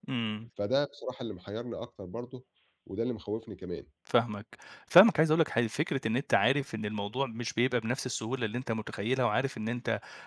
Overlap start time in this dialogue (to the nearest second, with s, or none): none